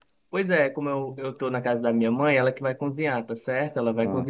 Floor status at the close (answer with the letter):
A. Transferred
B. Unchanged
B